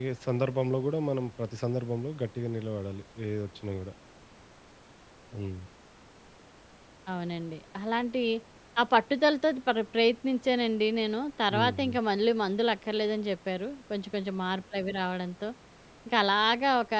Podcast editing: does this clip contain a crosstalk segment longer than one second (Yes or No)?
No